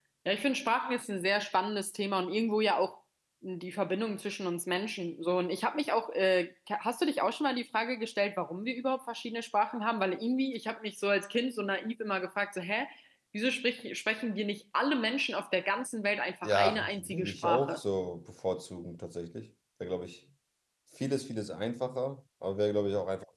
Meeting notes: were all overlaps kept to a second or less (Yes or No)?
No